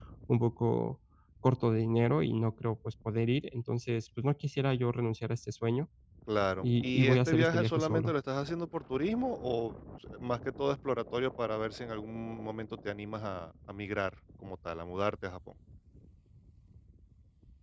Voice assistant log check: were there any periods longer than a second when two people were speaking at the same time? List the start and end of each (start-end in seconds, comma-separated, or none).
6.6-8.1